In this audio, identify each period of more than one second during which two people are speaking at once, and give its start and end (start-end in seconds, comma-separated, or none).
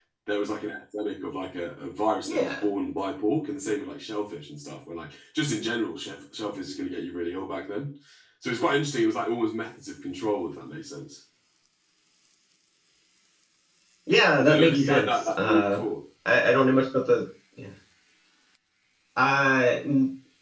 14.4-15.8